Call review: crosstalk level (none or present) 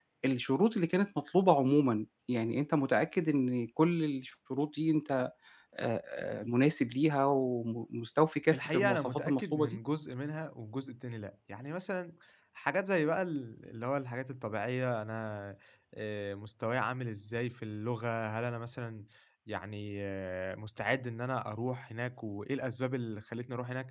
present